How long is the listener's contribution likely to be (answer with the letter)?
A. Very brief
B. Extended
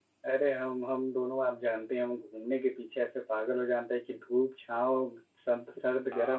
B